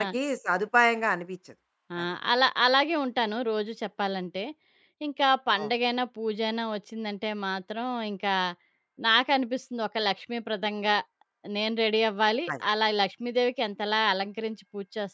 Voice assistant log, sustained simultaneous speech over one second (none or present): none